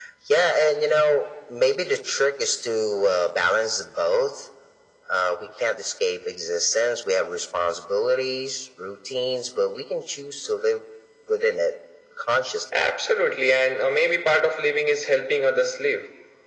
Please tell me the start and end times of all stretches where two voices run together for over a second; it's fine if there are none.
none

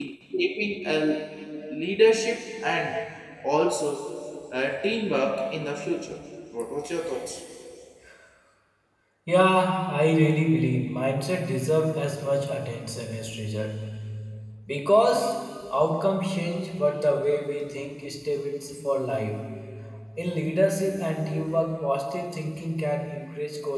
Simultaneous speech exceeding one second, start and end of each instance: none

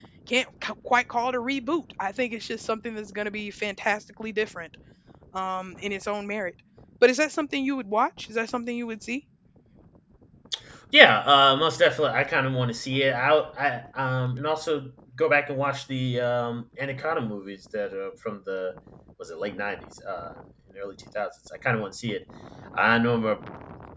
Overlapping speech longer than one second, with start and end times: none

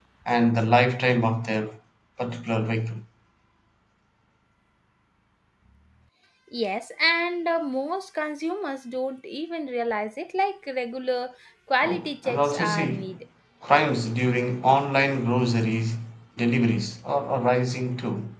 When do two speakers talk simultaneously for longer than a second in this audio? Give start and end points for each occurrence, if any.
11.8-13.1

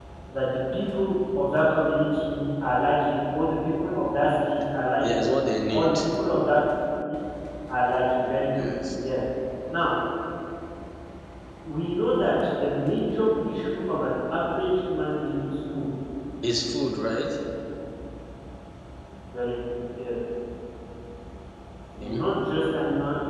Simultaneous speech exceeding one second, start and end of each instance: none

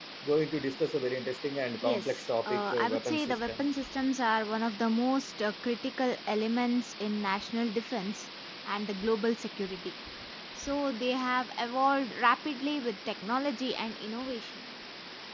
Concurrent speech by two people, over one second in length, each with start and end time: 1.8-3.7

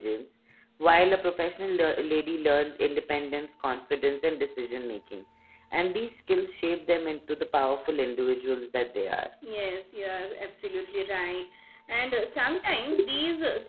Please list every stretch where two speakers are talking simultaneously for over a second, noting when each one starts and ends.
none

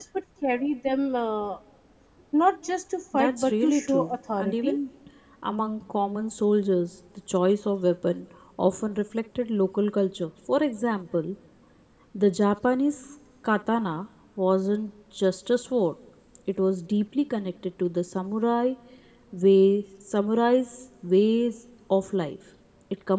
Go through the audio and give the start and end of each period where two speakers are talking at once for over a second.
3.1-4.8

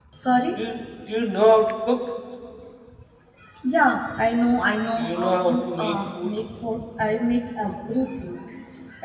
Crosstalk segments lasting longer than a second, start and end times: 5.0-6.3

